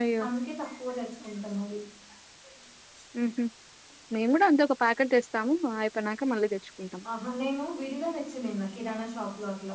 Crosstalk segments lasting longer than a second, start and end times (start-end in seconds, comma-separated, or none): none